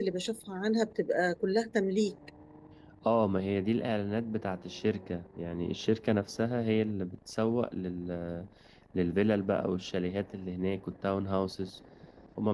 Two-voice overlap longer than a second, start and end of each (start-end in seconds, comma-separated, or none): none